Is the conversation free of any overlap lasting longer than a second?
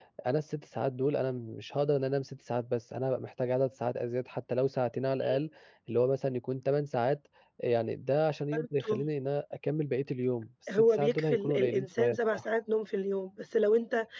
No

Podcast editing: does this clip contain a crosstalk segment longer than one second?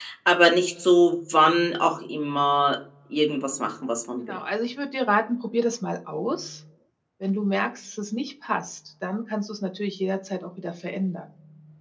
No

